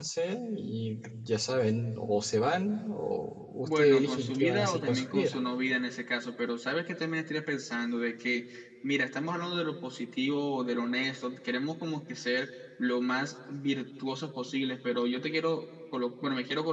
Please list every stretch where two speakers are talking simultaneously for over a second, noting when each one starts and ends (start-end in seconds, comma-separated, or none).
3.6-5.4